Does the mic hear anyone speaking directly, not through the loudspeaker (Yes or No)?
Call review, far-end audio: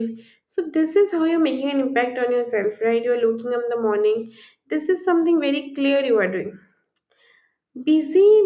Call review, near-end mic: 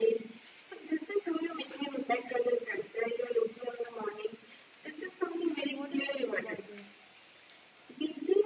Yes